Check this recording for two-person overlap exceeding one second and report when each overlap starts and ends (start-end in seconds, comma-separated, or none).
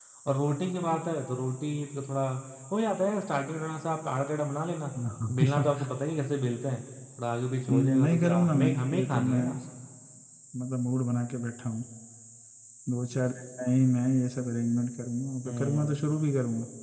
7.7-9.4